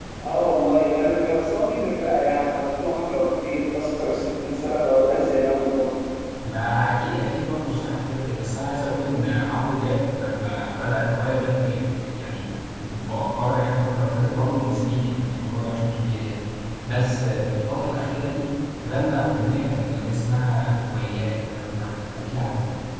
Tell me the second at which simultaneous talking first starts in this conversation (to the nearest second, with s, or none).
none